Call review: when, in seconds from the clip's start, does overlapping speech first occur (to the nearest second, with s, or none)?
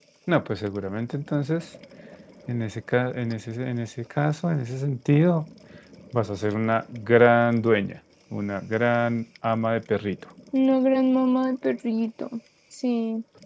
none